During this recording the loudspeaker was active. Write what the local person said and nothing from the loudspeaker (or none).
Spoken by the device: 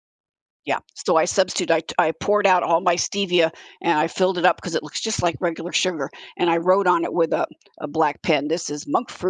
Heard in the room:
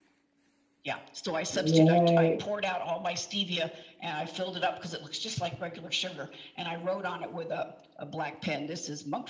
Right,